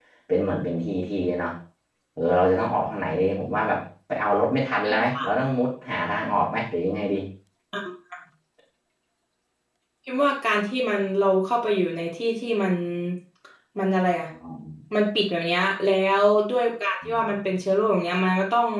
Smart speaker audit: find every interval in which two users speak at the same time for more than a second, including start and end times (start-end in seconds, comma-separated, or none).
none